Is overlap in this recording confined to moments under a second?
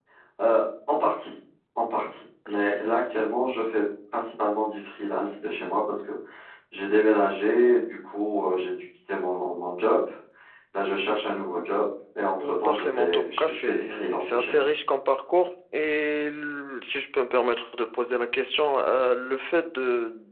No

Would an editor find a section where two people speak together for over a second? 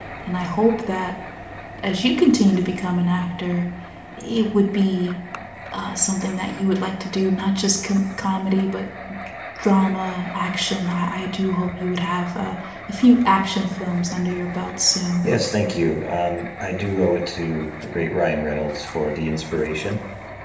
No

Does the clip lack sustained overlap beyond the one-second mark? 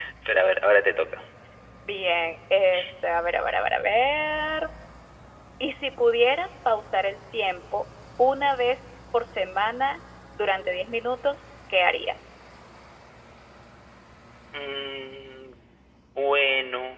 Yes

